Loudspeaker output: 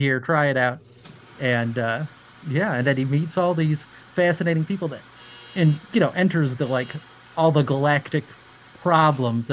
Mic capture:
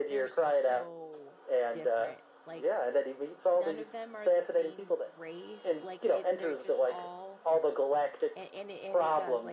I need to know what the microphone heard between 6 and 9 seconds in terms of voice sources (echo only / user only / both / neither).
both